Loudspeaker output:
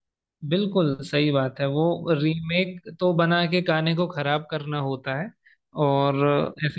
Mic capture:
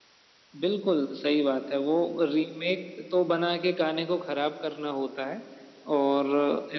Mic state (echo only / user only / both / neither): echo only